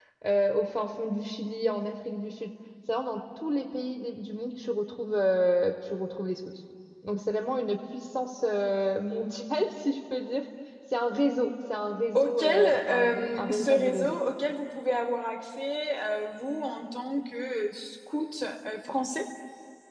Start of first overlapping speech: 12 s

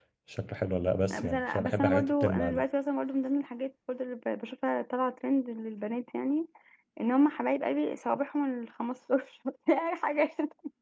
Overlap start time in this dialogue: 1 s

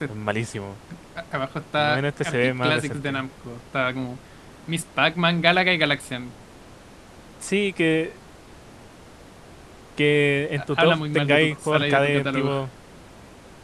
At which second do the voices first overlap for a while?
2 s

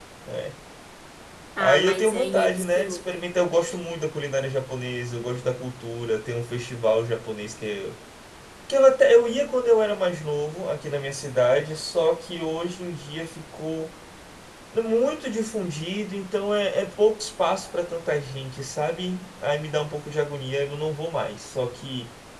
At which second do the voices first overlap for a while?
2 s

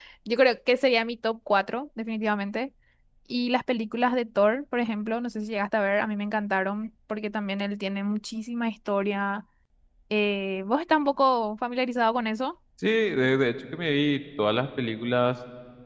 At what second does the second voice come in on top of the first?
none

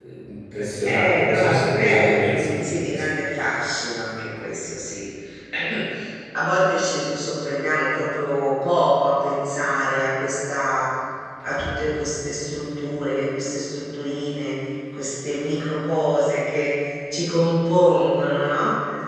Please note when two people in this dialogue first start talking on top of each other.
1 s

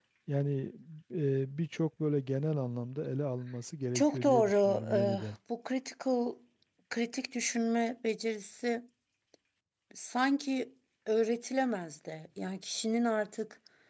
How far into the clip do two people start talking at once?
4 s

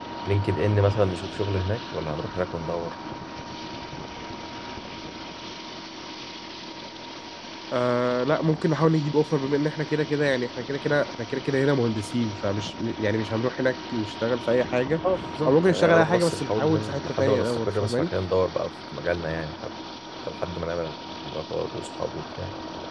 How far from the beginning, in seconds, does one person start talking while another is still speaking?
15 s

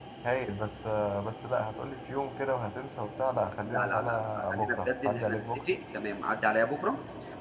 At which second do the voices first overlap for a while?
4 s

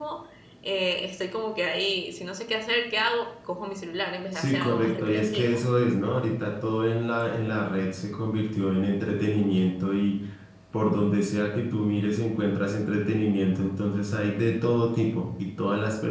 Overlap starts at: 4 s

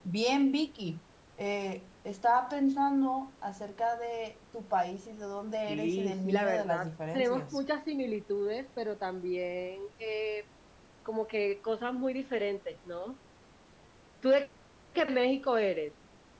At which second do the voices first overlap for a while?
6 s

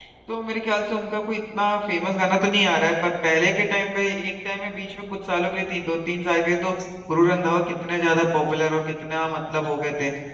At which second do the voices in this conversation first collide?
none

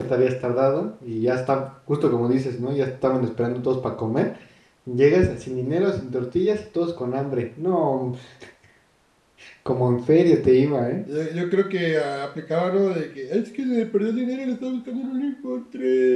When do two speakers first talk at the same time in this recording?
none

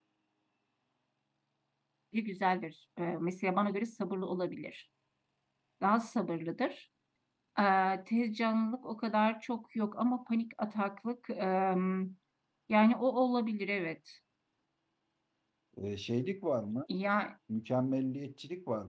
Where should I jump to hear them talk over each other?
none

